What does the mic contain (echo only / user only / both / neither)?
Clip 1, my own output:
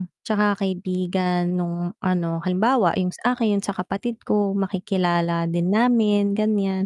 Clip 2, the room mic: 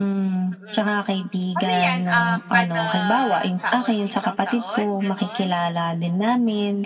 both